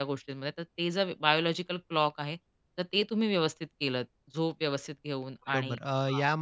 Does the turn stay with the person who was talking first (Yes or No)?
No